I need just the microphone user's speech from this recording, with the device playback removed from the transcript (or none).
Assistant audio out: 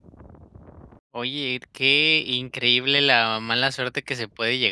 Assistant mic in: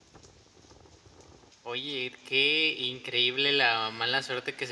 none